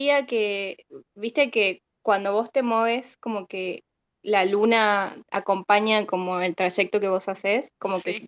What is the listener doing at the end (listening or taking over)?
listening